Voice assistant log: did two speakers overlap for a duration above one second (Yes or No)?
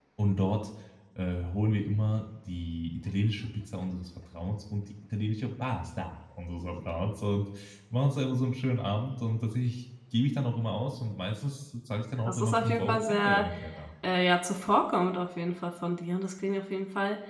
Yes